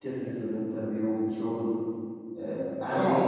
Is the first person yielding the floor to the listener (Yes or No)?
Yes